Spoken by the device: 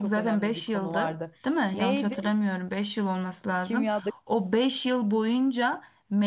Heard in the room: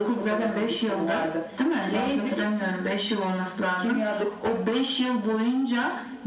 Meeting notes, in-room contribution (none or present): none